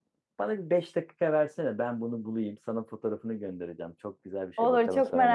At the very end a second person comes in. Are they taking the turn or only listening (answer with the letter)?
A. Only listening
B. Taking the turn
B